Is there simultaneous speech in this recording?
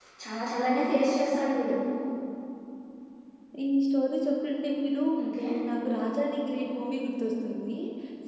No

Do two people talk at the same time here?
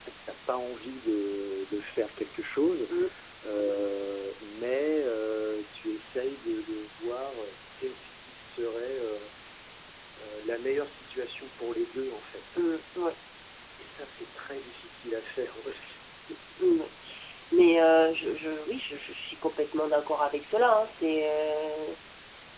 No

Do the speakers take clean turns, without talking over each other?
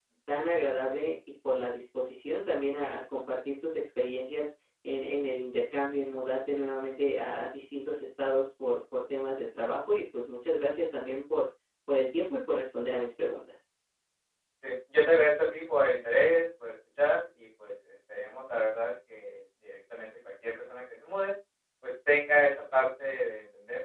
Yes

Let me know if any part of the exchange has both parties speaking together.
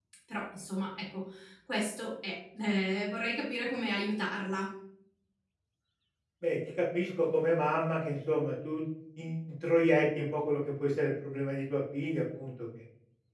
No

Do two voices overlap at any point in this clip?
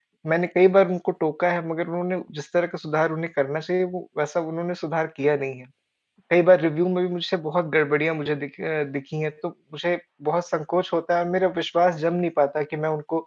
No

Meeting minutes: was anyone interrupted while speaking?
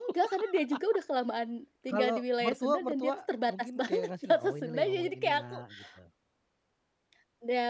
Yes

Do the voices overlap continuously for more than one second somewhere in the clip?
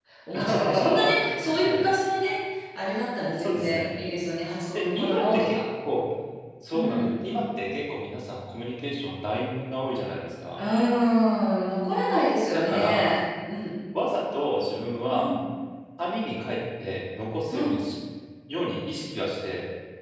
Yes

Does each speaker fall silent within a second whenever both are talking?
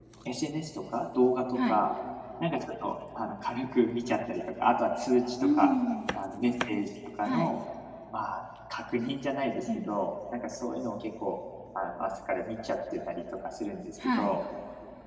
Yes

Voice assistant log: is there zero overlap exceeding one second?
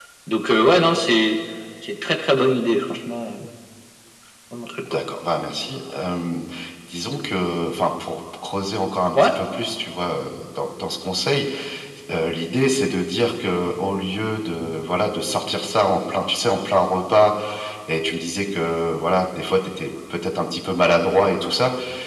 Yes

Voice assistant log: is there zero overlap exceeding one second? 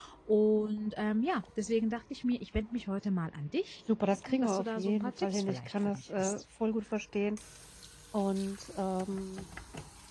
No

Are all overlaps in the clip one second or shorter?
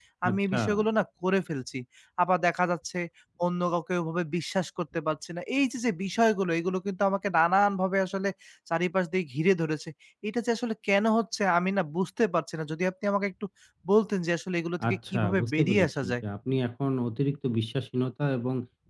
No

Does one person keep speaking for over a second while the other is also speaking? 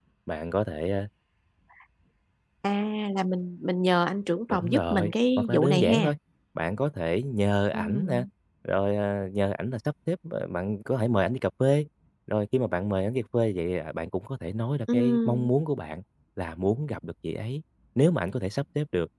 Yes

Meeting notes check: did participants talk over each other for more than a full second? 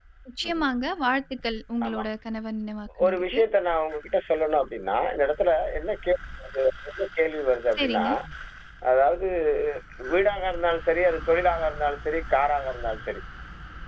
No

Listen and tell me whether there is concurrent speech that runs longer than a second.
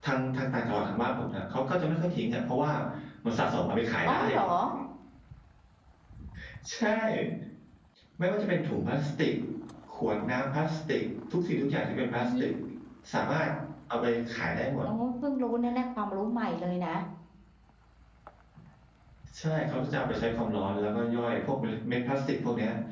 No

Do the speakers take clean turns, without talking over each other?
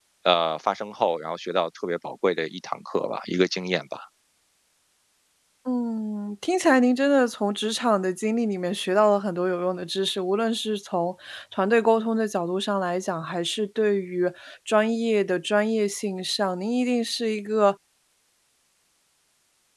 Yes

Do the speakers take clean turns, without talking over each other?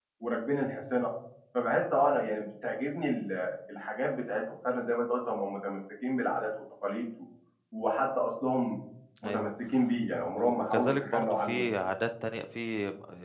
No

